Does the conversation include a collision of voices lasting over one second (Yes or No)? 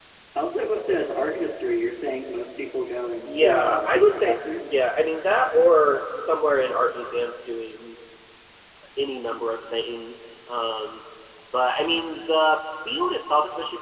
Yes